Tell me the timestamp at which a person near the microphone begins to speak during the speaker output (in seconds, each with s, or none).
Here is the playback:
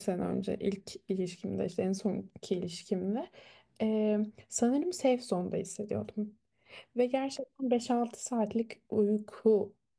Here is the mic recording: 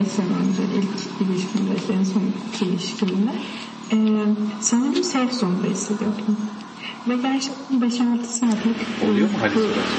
9.0 s